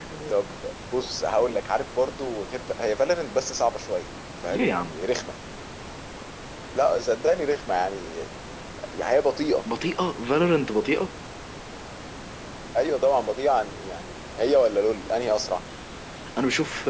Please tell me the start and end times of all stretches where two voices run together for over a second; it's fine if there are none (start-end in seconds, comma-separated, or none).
none